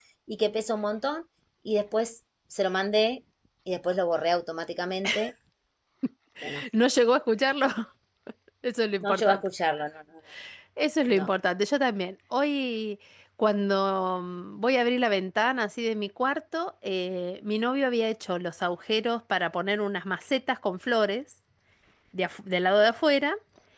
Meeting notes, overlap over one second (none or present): none